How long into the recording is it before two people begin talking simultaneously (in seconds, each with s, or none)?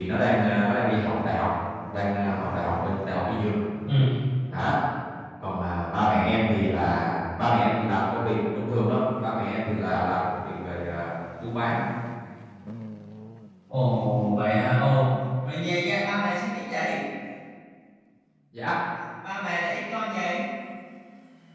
none